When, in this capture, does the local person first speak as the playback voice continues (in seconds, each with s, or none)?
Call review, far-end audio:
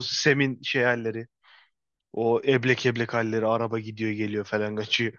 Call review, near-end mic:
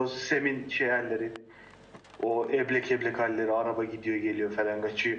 none